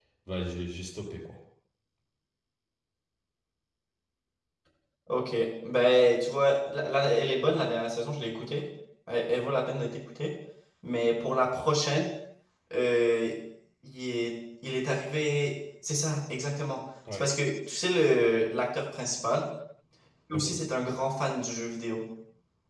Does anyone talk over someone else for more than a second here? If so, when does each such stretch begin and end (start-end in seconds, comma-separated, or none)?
none